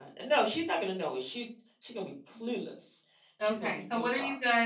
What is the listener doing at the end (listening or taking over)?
taking over